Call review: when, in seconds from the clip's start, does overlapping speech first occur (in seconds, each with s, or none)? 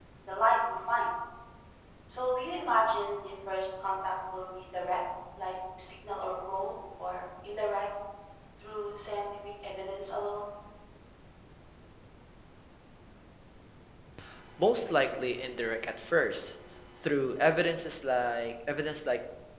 none